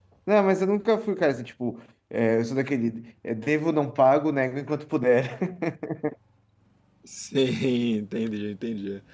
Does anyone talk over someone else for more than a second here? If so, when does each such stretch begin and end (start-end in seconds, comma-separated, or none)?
none